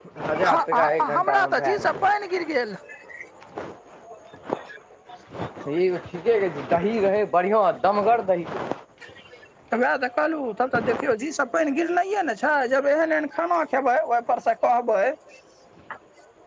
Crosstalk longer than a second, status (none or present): present